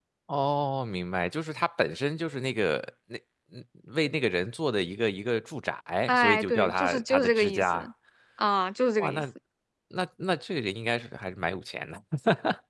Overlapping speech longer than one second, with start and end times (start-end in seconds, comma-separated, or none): 6.1-7.9